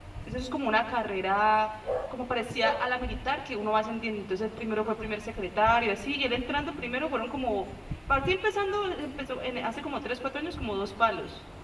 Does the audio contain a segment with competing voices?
No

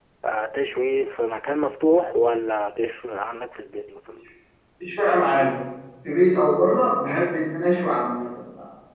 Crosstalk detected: No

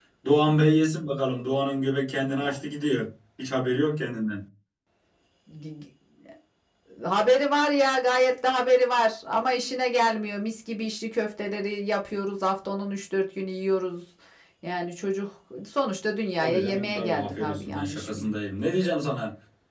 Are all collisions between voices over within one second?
No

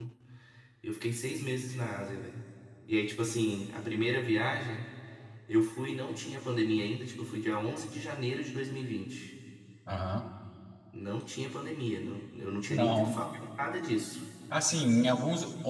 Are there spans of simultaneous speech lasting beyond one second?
No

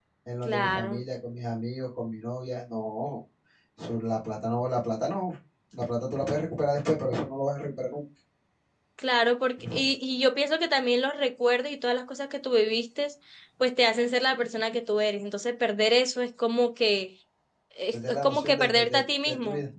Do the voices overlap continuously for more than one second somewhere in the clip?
Yes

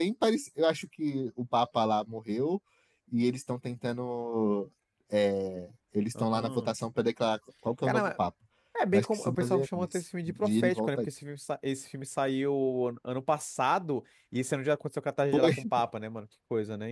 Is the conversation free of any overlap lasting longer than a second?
No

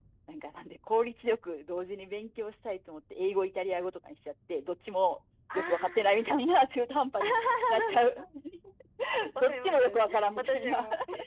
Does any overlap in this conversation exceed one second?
Yes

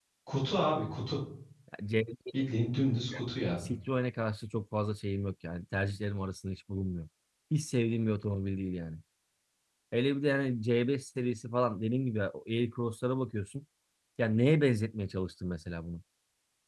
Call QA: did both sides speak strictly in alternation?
Yes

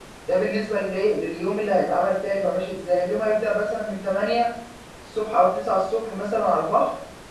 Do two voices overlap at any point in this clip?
No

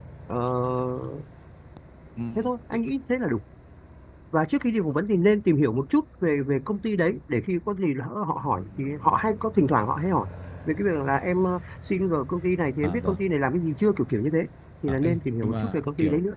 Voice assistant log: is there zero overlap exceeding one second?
No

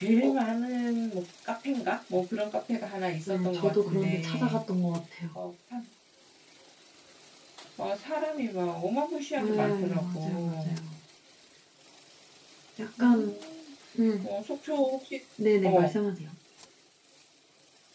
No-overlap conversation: No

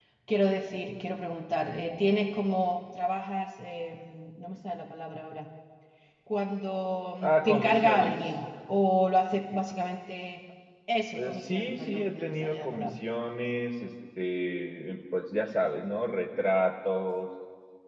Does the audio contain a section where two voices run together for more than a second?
Yes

